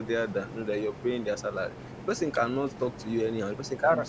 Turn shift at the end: No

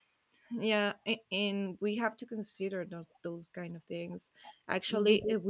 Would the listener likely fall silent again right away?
Yes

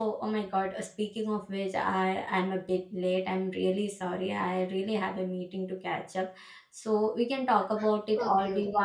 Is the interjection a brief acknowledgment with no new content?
No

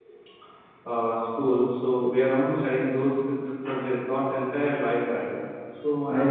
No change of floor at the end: Yes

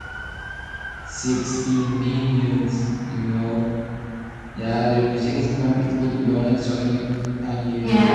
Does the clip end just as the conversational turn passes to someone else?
No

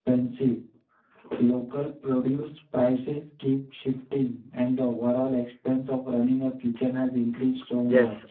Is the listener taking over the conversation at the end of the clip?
Yes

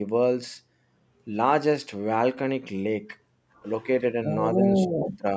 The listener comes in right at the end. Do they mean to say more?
No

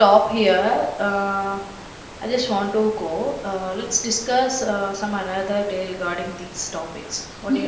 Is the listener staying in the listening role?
No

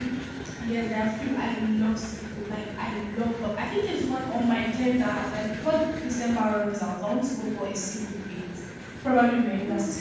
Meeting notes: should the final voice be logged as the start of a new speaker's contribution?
No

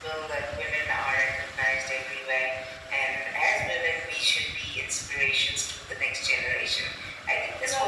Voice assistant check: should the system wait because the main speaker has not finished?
Yes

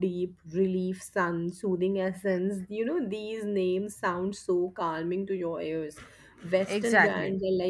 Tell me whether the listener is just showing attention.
Yes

